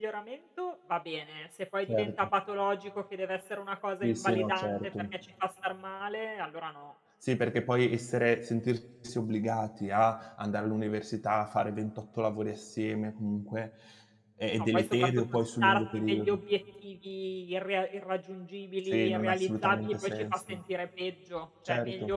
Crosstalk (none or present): present